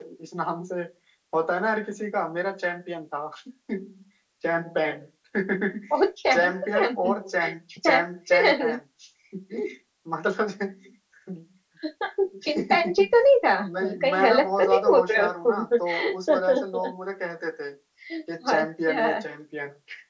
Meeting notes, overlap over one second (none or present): present